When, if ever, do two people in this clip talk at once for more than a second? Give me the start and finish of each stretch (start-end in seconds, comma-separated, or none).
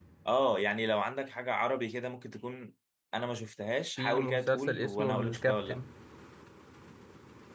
4.0-5.8